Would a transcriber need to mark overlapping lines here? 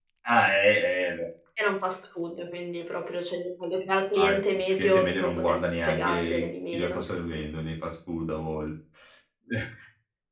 Yes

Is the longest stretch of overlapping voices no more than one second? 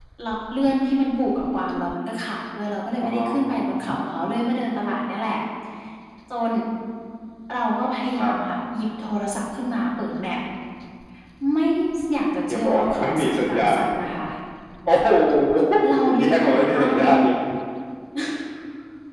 No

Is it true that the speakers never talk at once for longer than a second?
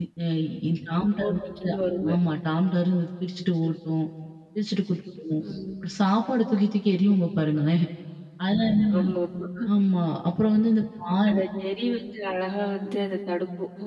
Yes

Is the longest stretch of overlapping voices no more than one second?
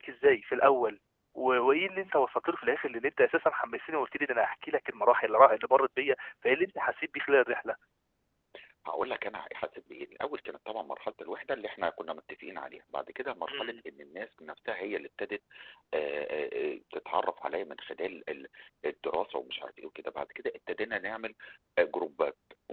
Yes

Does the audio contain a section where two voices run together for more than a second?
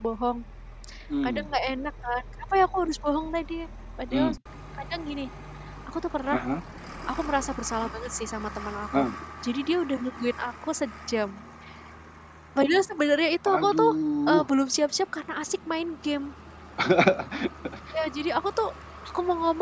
No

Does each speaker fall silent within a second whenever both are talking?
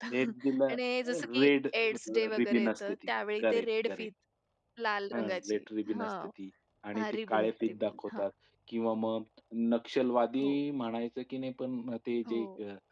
No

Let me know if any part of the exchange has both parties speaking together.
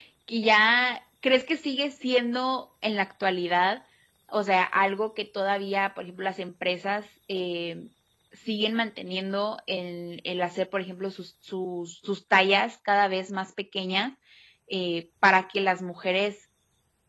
No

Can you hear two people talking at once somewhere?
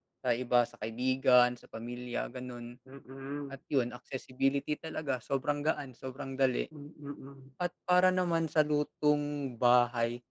No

